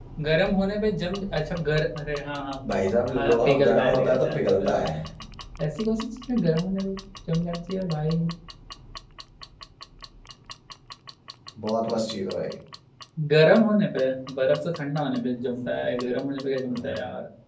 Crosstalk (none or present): present